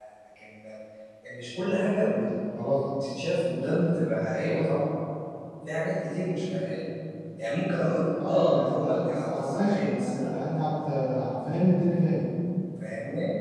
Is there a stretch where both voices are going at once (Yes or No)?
Yes